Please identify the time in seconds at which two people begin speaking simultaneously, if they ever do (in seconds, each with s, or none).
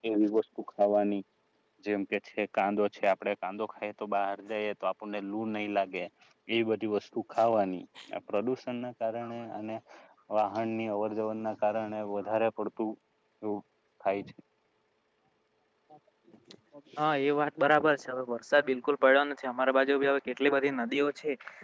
none